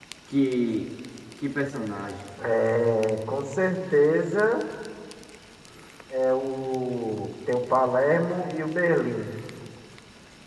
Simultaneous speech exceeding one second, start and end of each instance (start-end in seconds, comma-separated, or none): none